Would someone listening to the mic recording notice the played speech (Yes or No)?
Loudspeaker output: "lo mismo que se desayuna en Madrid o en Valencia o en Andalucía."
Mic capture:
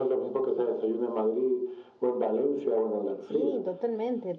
Yes